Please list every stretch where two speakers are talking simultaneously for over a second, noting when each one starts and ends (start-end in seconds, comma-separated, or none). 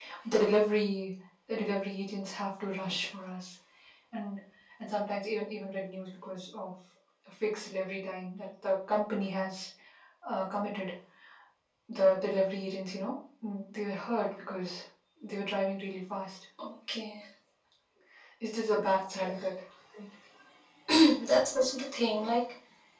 none